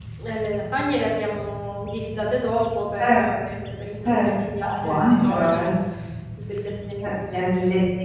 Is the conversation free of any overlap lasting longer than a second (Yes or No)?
No